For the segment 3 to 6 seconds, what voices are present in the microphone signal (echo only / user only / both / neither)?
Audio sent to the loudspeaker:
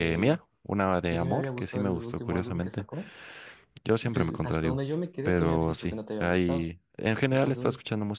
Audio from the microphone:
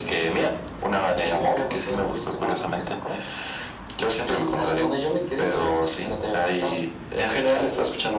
echo only